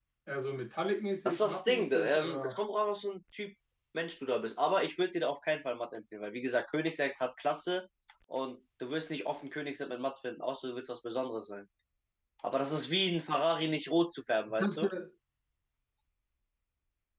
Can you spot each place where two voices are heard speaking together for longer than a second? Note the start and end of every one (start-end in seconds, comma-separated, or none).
1.2-2.6